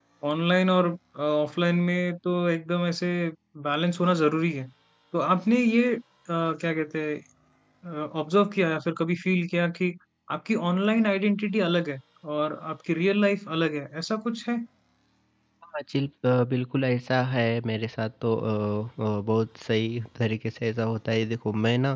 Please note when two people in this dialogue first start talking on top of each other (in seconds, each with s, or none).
none